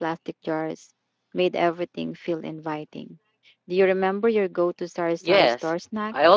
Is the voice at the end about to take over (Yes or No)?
Yes